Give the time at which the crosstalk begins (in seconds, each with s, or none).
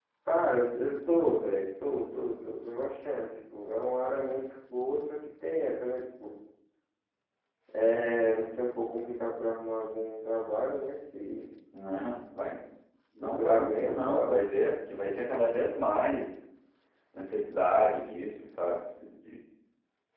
13.2 s